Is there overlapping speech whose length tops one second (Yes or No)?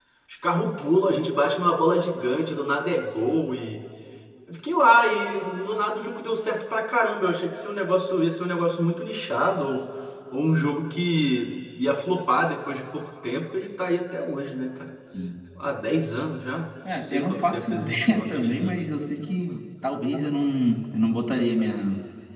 Yes